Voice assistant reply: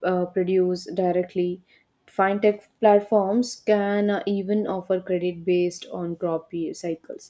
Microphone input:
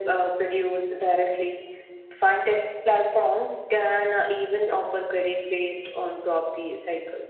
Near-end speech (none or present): none